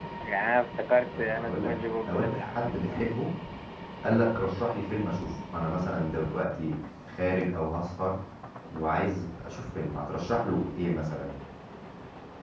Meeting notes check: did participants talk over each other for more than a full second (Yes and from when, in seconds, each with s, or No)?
Yes, from 1.1 s